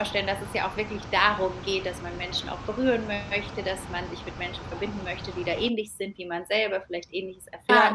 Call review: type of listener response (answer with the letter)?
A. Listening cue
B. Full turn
B